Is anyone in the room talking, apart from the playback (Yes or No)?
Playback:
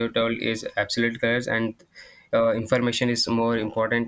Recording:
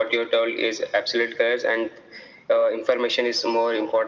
No